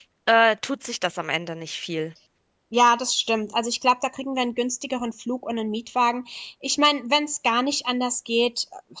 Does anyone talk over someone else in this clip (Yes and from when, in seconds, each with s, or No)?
No